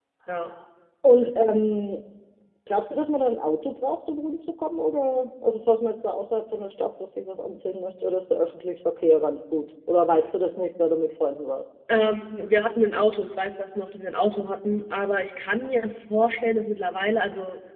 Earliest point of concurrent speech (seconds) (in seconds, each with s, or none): none